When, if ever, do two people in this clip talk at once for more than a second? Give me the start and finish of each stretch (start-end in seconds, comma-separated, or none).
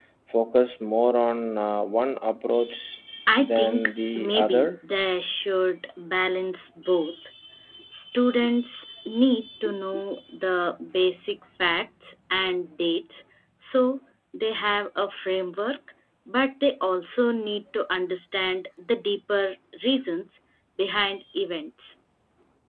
3.4-4.7